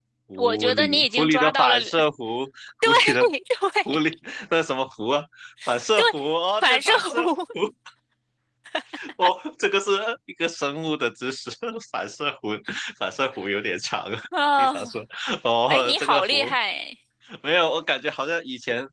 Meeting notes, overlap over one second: present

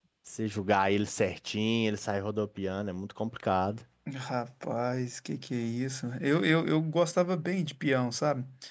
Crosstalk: none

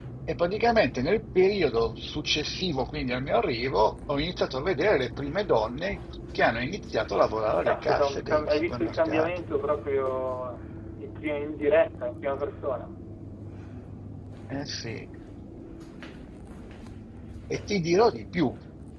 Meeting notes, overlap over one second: present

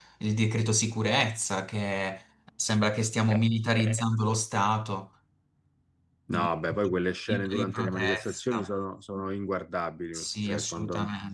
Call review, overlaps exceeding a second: present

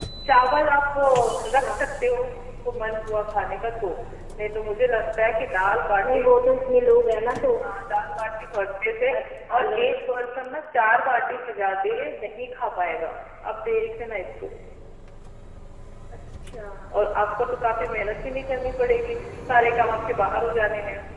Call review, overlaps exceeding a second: none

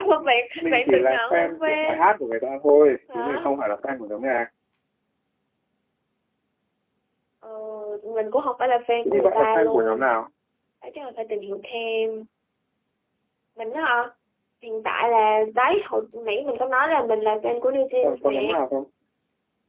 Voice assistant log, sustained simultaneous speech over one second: present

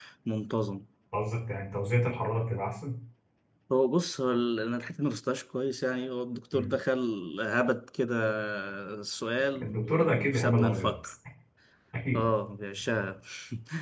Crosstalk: present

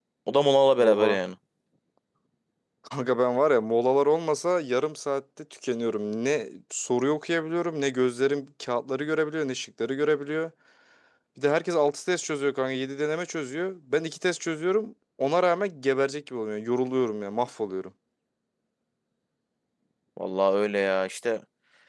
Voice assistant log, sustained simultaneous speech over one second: none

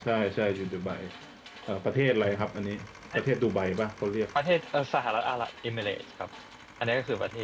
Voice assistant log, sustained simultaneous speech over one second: none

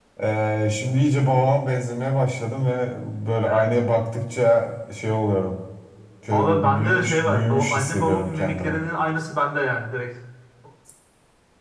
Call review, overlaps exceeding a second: present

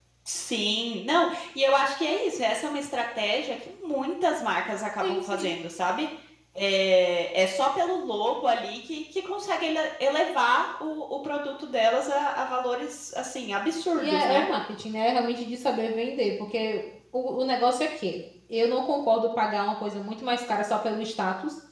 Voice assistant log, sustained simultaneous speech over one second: none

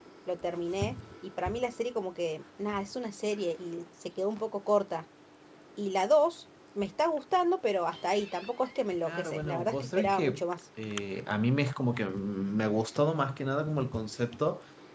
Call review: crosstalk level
present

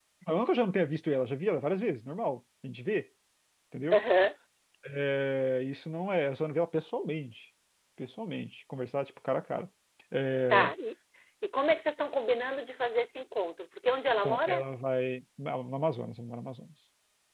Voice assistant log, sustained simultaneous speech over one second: none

